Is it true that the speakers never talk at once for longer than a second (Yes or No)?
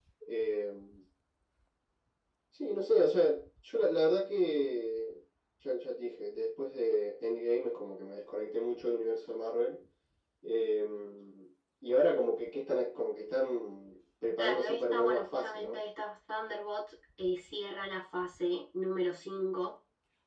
No